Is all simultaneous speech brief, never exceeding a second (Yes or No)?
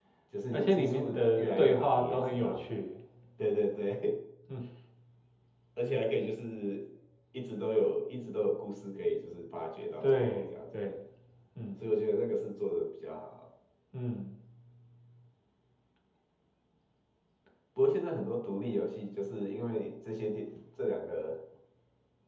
No